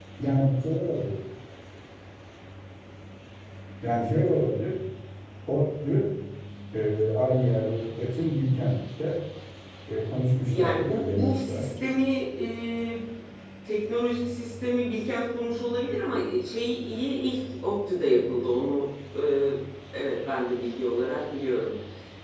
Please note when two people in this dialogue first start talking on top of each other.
10.5 s

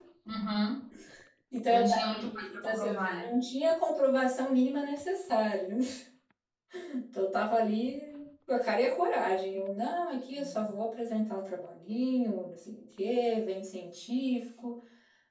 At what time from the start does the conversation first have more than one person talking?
1.7 s

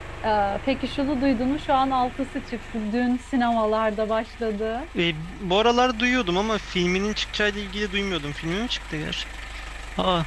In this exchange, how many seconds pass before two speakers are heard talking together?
none

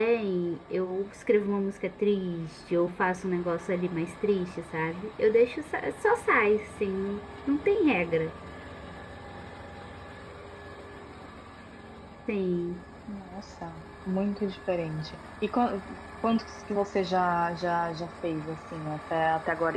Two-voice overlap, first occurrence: none

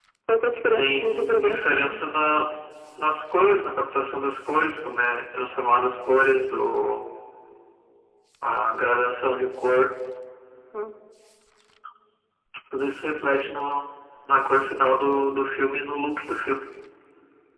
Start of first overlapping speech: 0.8 s

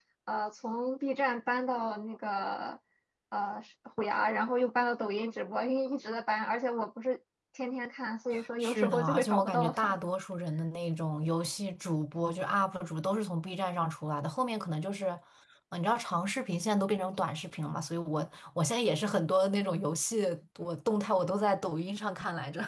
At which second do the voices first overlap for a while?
8.6 s

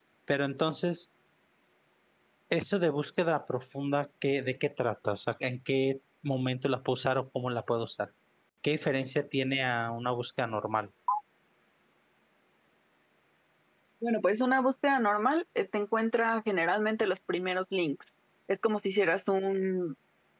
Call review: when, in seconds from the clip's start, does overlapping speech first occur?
none

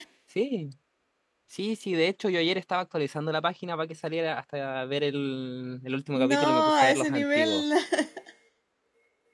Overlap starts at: 6.2 s

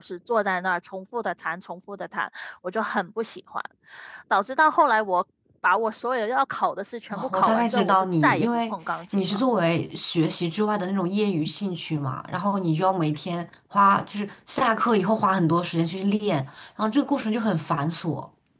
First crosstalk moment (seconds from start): 7.1 s

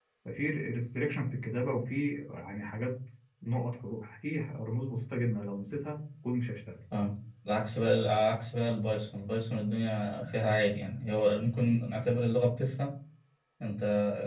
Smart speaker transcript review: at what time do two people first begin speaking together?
none

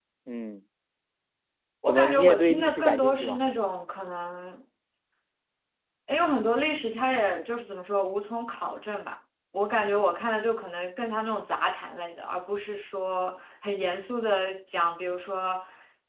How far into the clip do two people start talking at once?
1.9 s

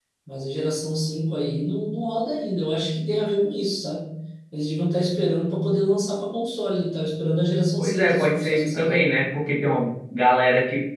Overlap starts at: 7.8 s

